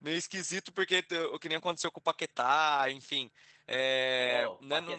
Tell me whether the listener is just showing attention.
No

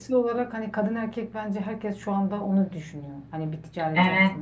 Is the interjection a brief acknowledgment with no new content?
No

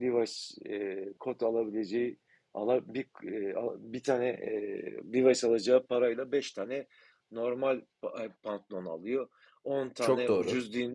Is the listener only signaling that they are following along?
Yes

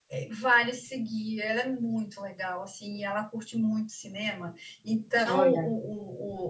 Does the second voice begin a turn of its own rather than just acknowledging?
No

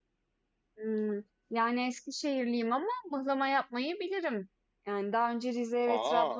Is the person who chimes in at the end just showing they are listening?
Yes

